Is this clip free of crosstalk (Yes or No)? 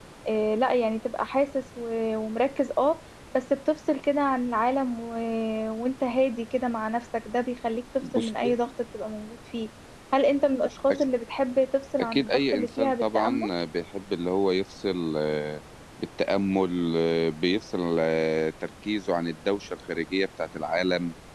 No